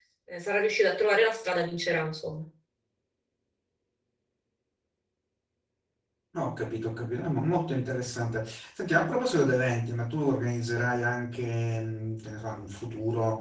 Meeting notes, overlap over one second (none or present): none